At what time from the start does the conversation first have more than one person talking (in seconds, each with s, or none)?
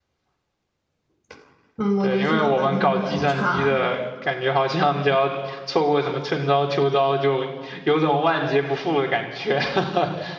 2.0 s